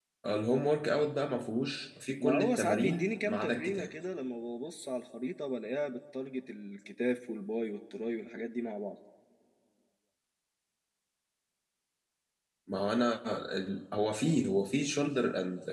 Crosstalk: present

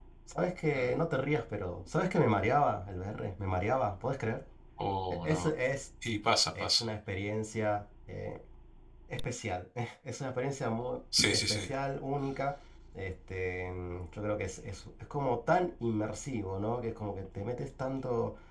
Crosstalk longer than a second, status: none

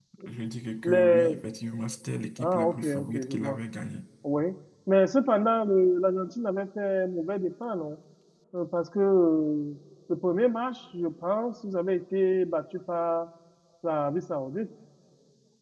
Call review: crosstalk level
present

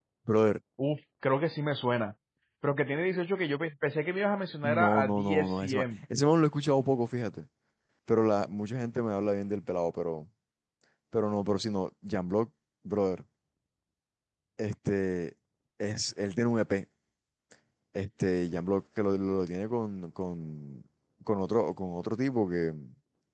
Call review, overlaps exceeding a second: present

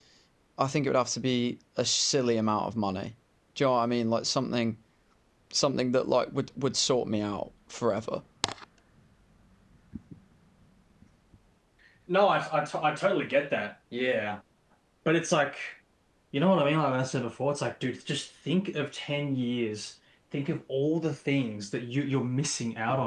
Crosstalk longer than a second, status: none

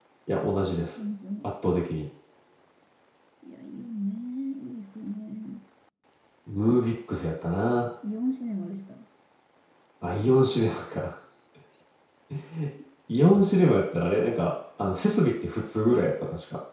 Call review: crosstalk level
none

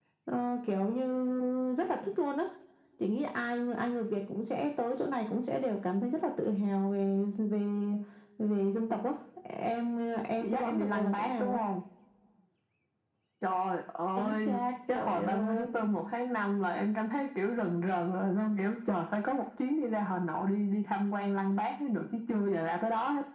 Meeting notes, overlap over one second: present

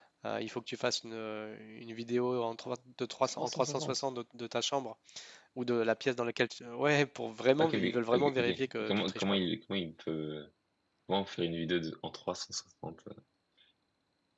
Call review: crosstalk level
present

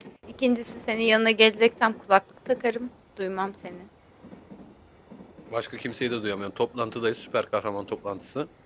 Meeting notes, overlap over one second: none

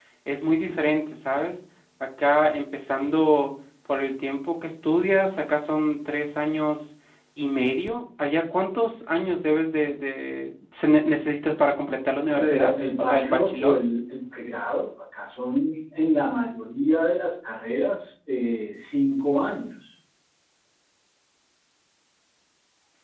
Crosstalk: present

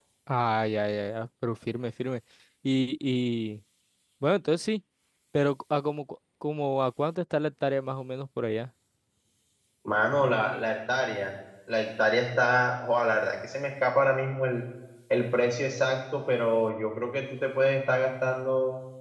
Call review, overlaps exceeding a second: none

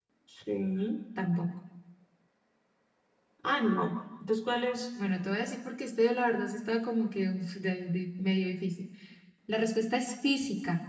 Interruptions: none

